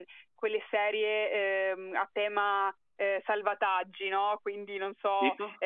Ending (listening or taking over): listening